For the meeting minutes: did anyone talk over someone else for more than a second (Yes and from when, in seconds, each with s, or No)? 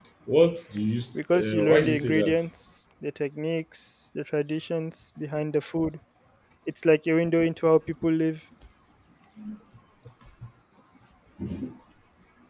Yes, from 1.1 s